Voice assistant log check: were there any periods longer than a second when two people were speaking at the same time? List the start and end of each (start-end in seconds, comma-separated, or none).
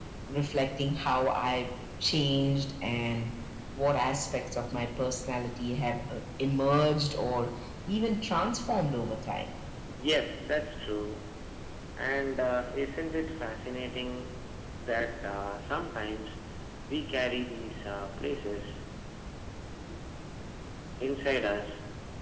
none